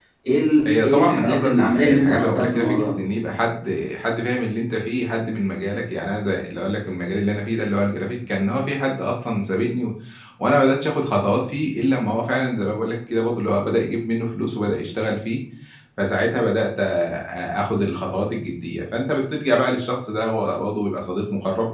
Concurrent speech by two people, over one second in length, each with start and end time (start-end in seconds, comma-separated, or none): 0.6-2.9